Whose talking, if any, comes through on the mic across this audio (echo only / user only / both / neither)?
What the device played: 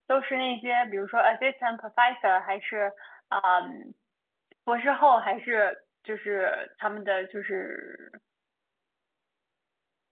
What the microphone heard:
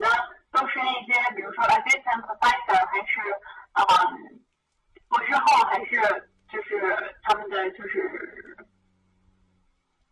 echo only